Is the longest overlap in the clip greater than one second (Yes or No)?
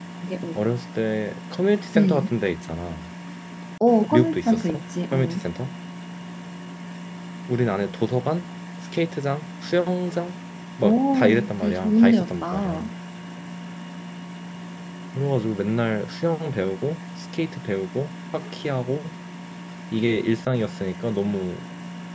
Yes